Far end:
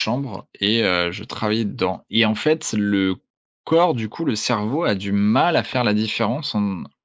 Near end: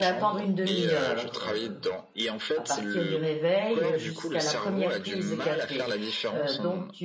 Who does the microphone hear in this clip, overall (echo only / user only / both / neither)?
both